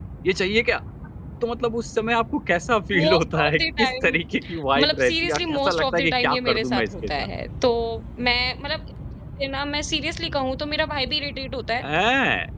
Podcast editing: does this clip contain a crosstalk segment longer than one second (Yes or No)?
Yes